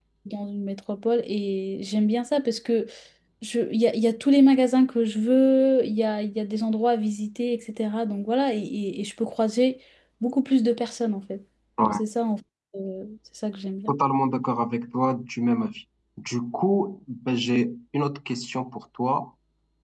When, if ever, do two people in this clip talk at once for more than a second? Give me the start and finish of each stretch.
none

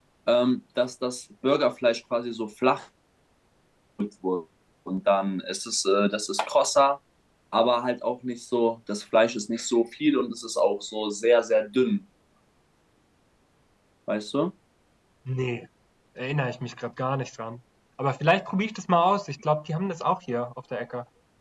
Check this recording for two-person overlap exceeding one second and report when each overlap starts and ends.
none

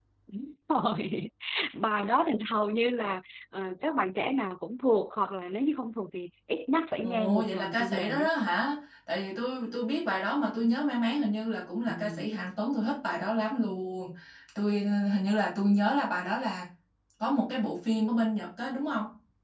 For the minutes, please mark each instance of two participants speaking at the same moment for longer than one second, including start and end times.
7.0-8.3

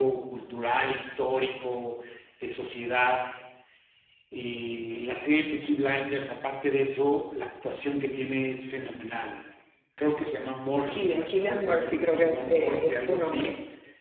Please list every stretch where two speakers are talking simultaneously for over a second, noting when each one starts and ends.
10.9-13.5

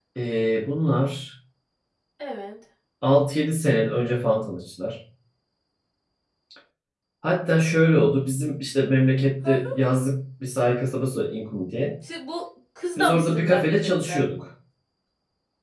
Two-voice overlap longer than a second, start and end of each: 13.0-14.2

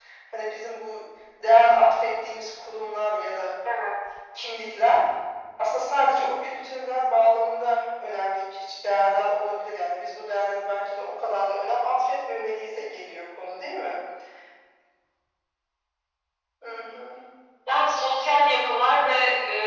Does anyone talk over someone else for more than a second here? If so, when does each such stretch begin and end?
none

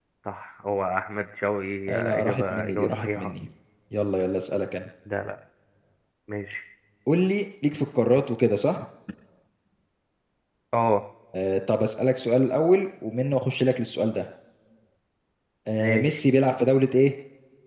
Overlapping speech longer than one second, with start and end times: 1.9-3.3

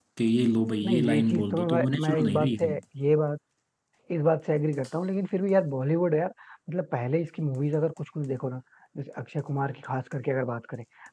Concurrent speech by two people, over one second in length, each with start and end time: 0.8-2.7

